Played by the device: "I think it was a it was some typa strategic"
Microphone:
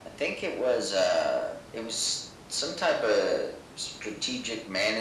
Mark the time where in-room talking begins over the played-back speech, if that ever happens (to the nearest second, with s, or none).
none